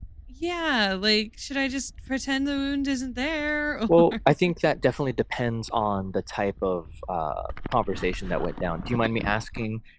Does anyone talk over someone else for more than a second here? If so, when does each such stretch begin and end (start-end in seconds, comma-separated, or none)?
none